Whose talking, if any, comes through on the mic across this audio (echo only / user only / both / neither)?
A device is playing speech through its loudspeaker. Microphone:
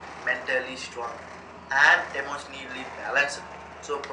echo only